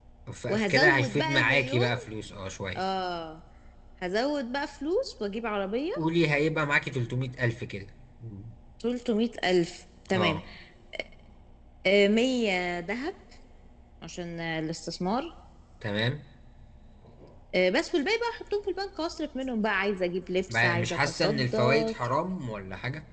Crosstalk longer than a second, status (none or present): present